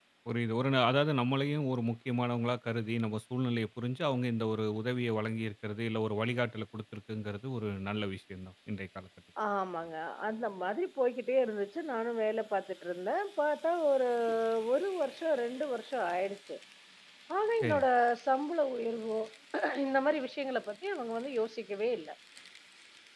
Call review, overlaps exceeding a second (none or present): none